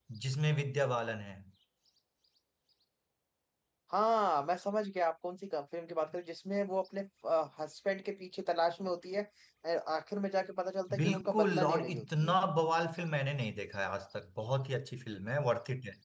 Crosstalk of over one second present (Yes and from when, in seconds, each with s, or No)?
Yes, from 10.9 s